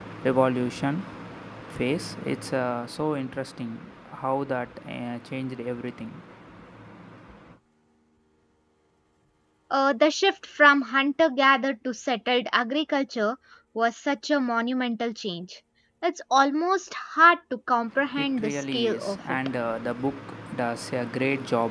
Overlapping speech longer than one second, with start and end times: 18.2-19.4

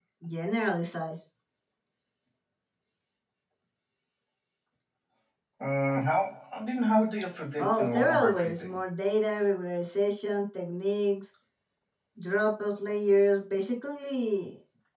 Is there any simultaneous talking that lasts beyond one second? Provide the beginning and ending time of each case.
7.6-8.8

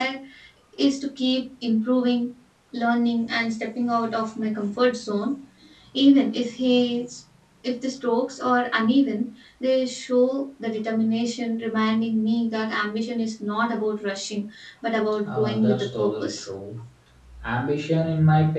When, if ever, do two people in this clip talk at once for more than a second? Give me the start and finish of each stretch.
15.2-16.5

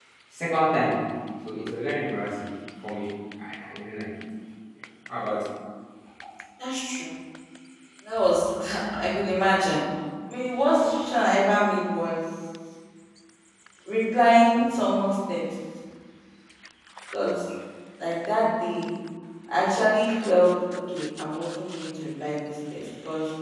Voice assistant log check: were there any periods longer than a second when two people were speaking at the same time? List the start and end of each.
none

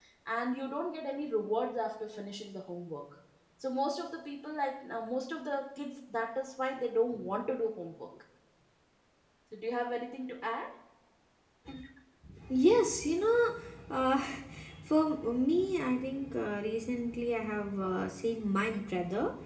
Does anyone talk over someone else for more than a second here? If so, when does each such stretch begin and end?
none

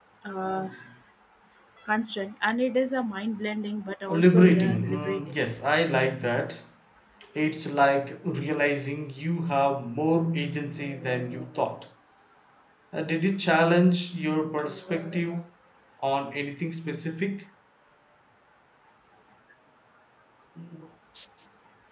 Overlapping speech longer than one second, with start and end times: 4.1-5.4

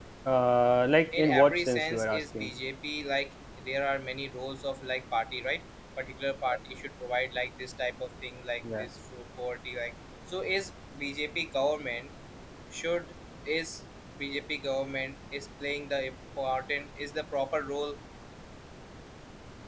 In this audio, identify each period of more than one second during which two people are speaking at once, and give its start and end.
1.1-2.5

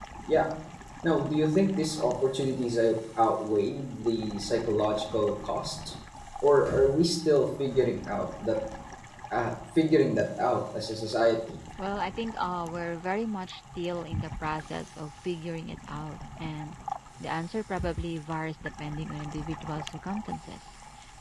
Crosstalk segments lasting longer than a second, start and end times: none

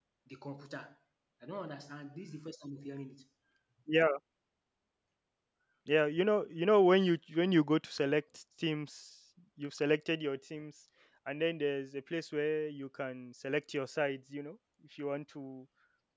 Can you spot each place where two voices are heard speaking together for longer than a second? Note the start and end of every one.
none

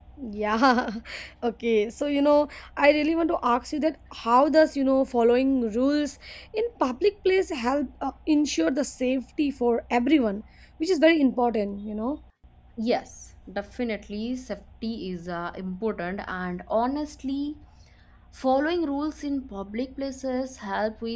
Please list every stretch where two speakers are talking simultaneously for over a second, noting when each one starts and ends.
none

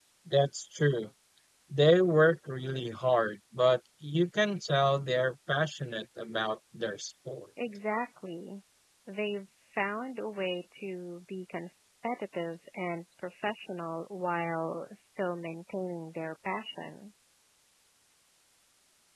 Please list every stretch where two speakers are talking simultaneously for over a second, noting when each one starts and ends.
none

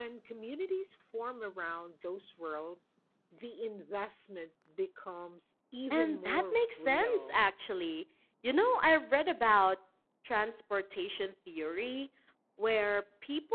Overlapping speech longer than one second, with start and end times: 5.9-7.4

